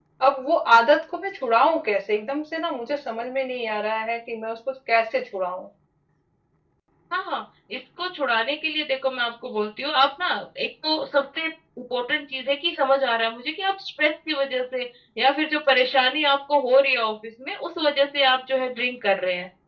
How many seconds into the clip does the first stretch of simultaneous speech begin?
none

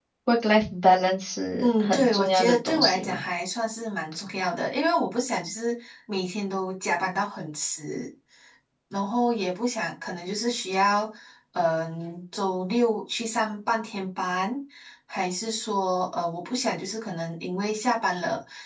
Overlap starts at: 1.6 s

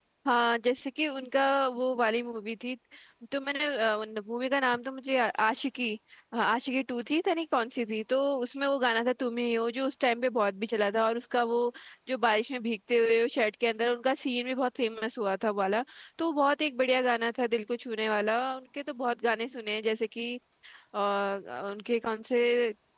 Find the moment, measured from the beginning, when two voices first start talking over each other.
none

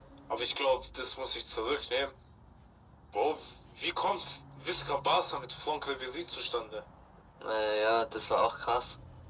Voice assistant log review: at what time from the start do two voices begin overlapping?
none

